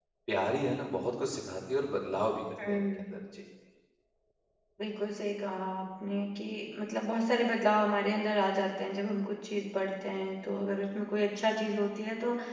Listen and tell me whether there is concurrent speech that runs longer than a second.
No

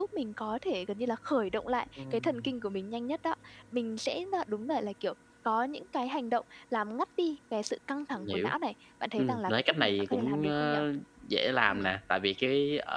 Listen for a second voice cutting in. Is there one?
Yes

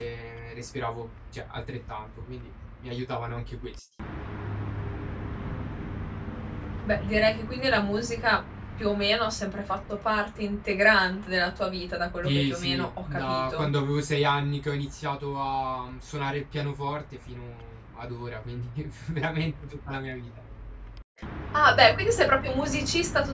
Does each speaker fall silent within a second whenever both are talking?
No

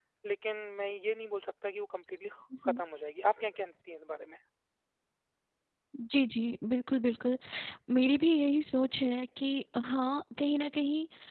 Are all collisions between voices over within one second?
Yes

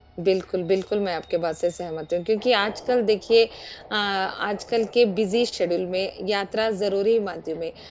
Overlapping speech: No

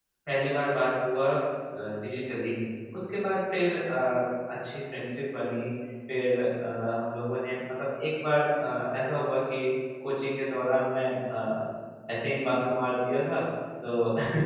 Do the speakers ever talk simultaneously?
No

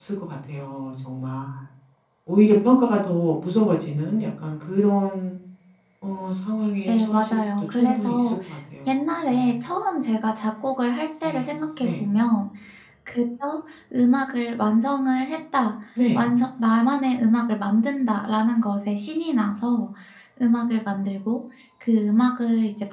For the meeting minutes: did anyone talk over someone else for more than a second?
Yes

